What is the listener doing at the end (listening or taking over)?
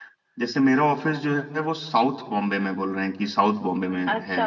taking over